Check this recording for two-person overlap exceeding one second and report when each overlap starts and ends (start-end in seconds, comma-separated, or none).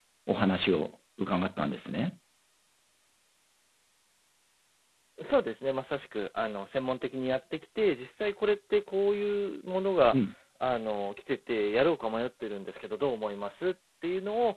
none